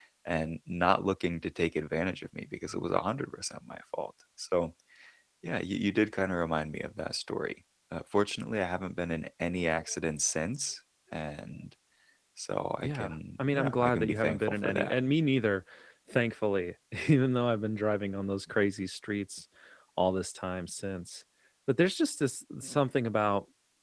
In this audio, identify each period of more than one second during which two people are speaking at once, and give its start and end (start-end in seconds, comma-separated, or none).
12.8-14.9